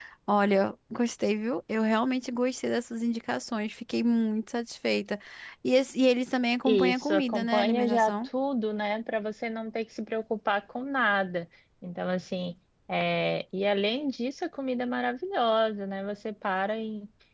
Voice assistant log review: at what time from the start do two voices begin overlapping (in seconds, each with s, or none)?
6.6 s